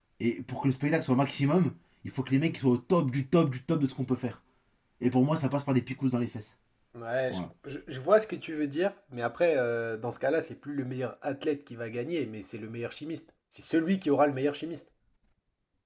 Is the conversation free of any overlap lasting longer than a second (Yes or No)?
Yes